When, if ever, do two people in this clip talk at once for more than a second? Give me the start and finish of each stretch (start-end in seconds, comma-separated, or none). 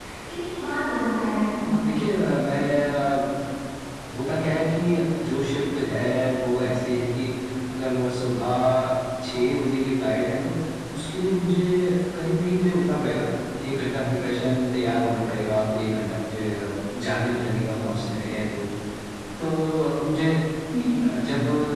none